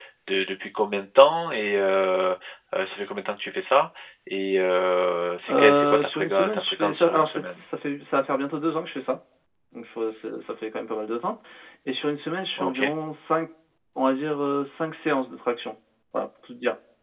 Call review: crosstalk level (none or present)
present